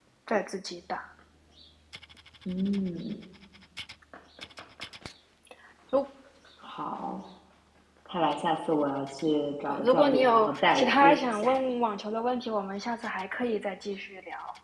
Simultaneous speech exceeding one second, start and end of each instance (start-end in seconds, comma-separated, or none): 9.7-11.5